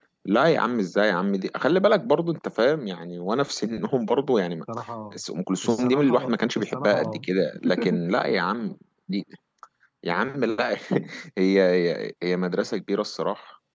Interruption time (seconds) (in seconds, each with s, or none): 5.6 s